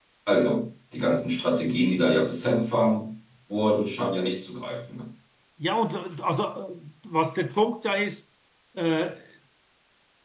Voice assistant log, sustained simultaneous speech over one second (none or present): none